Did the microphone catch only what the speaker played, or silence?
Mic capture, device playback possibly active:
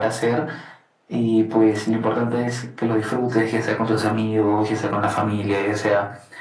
Yes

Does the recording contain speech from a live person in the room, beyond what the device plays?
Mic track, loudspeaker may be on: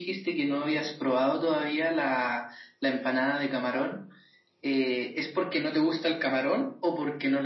No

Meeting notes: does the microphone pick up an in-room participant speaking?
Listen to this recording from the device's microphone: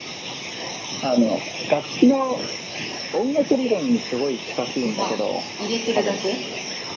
Yes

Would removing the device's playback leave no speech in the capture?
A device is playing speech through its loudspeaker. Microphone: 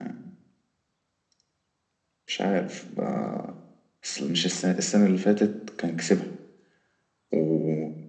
Yes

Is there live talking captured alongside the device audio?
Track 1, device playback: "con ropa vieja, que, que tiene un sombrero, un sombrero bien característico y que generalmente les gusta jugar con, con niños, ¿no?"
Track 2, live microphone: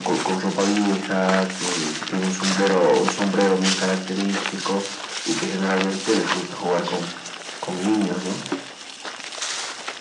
No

